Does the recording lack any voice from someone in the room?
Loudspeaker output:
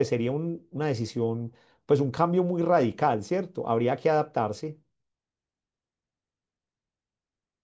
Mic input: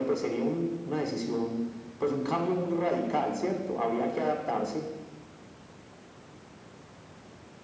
Yes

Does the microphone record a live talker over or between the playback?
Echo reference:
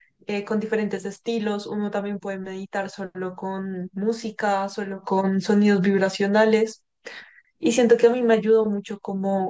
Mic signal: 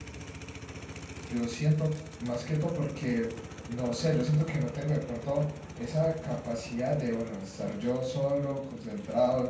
Yes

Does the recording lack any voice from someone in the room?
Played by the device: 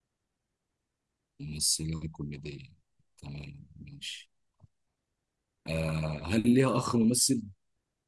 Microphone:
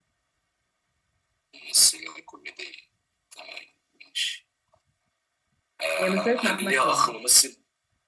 No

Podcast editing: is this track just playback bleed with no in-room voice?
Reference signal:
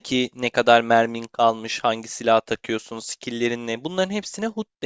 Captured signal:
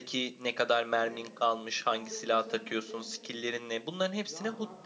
No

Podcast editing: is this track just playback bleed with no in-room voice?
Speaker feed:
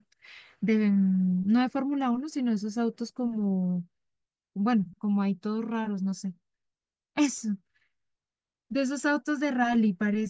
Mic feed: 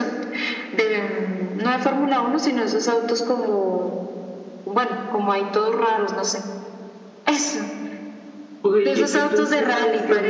No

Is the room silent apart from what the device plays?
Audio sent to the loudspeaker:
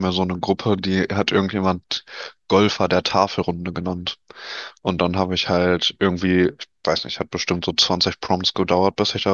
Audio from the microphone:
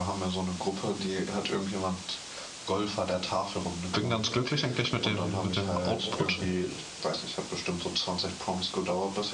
No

